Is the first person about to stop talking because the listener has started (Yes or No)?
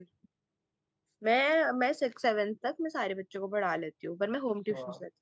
Yes